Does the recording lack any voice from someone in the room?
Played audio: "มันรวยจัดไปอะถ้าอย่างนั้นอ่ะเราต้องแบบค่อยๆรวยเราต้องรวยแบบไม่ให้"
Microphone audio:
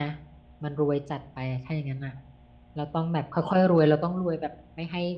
Yes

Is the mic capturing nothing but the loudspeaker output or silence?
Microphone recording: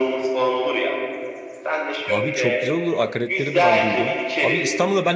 No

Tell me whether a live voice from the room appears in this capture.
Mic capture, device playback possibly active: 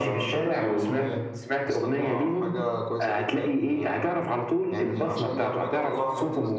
Yes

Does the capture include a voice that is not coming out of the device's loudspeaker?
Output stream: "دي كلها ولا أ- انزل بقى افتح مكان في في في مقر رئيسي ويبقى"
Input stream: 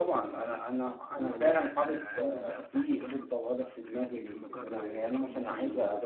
Yes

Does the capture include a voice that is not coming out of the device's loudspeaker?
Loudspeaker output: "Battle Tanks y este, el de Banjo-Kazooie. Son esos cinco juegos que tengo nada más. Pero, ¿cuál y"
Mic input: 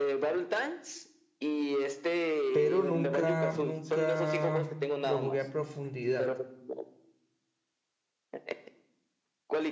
Yes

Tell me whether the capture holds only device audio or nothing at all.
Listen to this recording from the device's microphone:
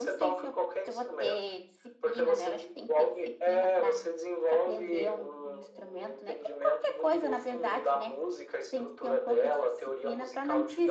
No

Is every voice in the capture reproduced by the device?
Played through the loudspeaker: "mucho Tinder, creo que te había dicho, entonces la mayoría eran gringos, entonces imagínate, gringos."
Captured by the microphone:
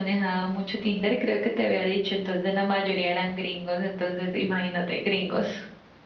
Yes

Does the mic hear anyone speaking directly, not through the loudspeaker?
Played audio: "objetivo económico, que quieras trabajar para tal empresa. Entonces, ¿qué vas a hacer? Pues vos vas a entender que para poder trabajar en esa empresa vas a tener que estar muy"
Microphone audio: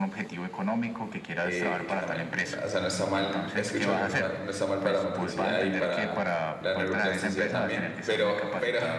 Yes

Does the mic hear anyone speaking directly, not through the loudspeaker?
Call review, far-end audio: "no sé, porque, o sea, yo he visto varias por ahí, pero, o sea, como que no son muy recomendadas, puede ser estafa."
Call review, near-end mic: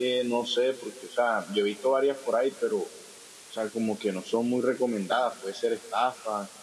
No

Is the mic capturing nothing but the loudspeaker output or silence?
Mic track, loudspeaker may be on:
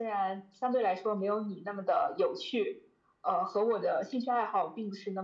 Yes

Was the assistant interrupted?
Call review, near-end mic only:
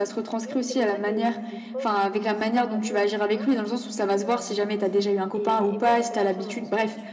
Yes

